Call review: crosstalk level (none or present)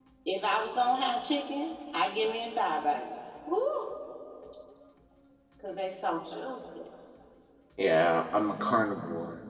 none